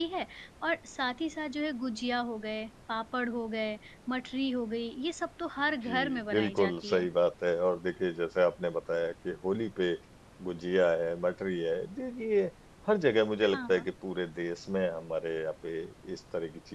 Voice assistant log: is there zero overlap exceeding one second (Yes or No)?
No